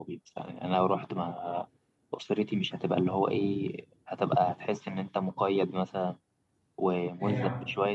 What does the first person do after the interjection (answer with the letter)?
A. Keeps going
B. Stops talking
A